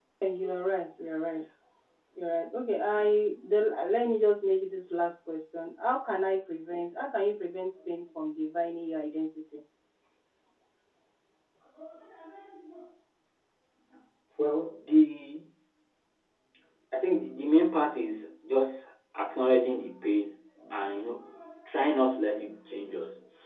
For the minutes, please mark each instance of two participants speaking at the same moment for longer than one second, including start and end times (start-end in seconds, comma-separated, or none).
none